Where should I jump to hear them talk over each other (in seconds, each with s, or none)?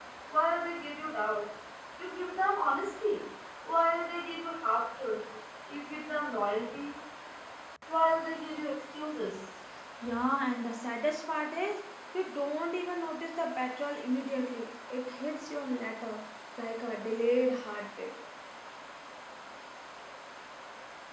none